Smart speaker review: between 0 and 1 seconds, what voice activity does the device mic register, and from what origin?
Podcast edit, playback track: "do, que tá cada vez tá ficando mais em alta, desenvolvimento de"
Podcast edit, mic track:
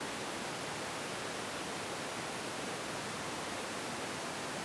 neither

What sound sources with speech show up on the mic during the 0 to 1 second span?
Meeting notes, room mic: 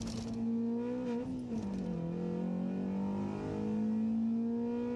neither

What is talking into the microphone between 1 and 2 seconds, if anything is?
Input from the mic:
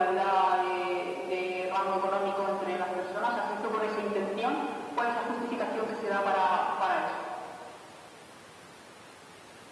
echo only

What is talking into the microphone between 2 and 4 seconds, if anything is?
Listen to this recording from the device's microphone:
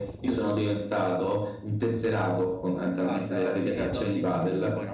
both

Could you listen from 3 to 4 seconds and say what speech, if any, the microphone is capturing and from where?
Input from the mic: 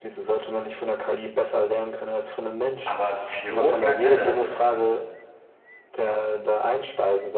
both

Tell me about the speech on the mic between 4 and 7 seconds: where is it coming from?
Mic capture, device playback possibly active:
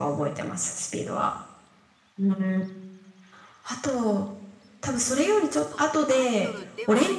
both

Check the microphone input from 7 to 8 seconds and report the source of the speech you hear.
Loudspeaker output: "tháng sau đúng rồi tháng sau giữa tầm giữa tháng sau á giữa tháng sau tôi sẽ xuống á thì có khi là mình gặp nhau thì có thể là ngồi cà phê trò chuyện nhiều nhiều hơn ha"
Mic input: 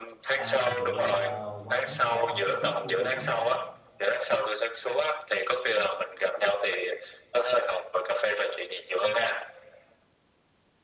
echo only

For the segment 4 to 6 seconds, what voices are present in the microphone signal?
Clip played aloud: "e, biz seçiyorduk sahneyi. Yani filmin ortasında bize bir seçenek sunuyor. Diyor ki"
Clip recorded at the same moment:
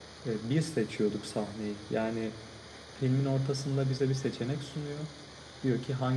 echo only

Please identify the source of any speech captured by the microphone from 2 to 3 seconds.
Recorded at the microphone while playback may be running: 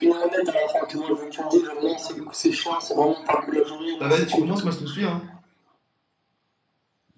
echo only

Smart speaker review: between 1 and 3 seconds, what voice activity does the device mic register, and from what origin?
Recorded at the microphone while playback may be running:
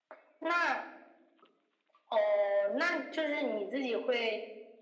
echo only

